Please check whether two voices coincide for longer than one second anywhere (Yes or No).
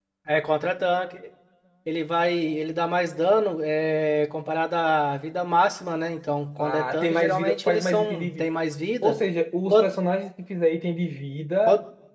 Yes